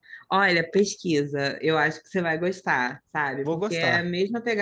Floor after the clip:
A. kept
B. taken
A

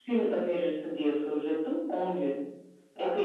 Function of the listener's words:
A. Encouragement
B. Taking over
B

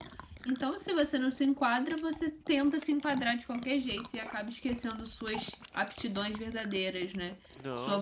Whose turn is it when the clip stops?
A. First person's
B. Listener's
A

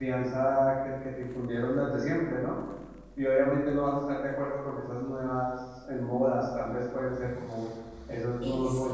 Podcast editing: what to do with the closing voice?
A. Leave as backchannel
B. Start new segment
B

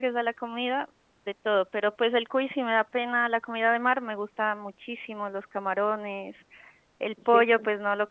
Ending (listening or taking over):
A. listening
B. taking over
A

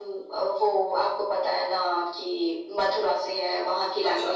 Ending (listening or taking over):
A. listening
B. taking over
A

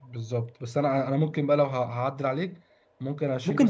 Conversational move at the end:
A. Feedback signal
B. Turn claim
A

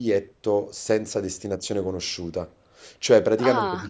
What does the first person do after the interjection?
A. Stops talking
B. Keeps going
B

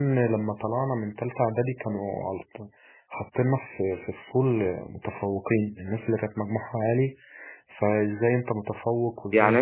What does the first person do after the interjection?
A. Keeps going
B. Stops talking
B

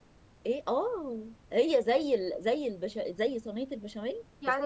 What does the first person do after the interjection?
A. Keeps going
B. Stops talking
B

